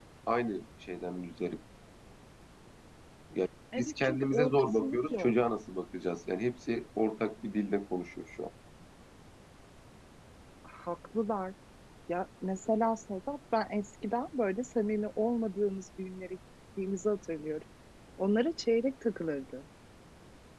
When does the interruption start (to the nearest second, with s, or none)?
4 s